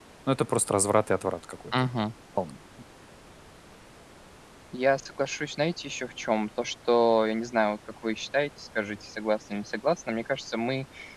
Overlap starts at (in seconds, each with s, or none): none